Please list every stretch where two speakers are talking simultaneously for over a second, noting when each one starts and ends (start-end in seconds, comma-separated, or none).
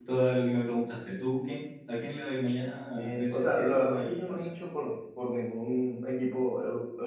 3.0-4.5